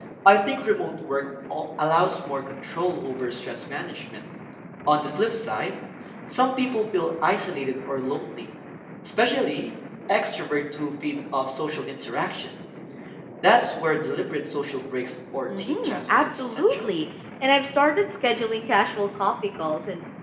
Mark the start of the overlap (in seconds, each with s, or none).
15.5 s